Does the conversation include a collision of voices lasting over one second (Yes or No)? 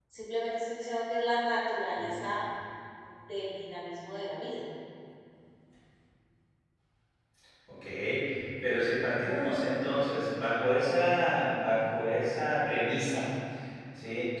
No